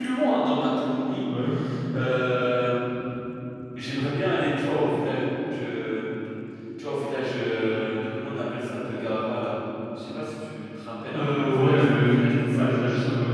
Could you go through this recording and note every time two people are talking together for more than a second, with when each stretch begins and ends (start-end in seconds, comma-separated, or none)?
11.1-12.7